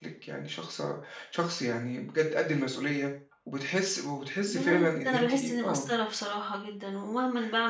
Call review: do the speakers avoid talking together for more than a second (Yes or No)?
No